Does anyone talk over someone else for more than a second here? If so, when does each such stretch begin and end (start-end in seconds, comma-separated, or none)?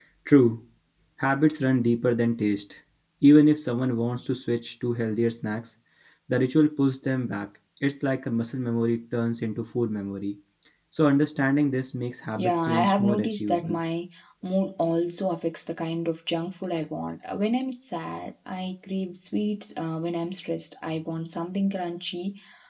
12.3-13.8